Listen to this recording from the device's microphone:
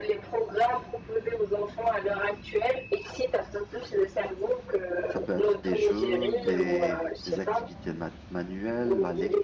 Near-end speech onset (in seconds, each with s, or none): 5.1 s